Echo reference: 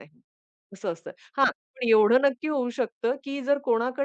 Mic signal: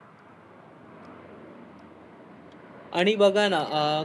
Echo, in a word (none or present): none